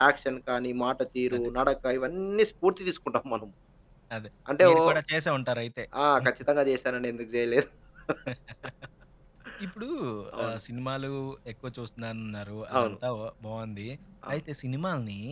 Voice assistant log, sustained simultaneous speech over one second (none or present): none